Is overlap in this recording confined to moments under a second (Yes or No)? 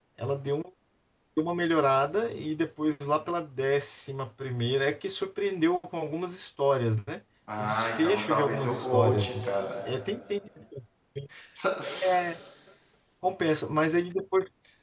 No